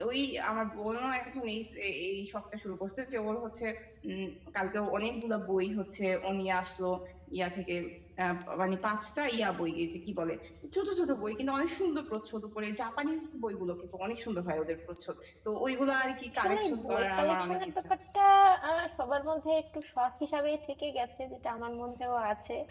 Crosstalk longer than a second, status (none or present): present